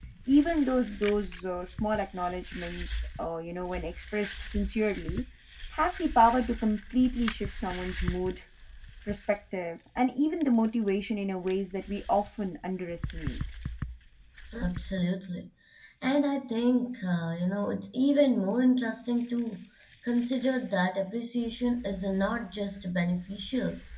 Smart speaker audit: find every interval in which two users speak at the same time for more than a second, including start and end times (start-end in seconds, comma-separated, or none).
none